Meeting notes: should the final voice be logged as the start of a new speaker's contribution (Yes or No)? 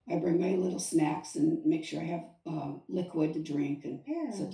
No